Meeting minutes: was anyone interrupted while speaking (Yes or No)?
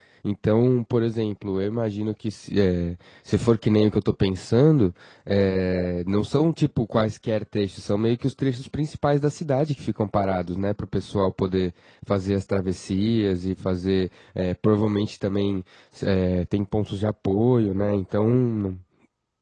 No